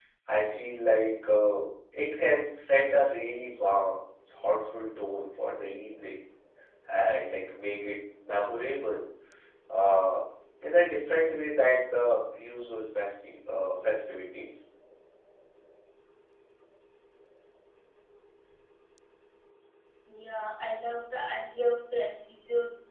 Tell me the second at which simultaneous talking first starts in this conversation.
none

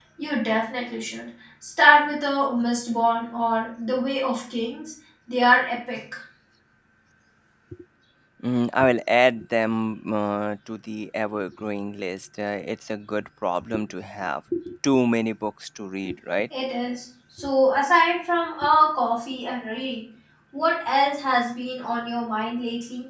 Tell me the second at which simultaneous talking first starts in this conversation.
none

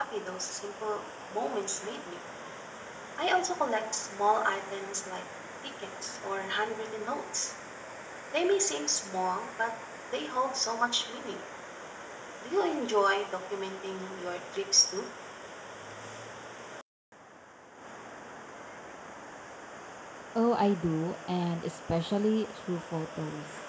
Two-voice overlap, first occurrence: none

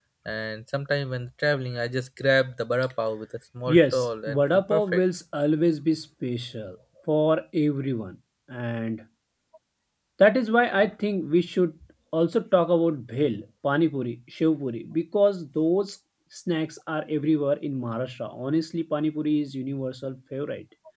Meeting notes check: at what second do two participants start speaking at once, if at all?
3.7 s

